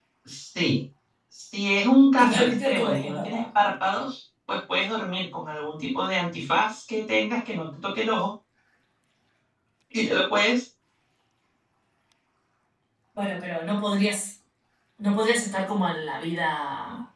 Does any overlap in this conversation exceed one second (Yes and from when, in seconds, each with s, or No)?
Yes, from 2.2 s